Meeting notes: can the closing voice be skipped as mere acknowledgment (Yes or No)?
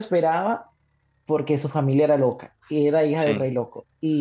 Yes